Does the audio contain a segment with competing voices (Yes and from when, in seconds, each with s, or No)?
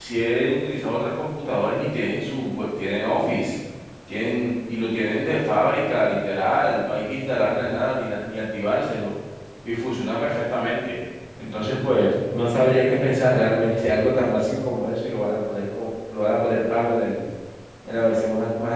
No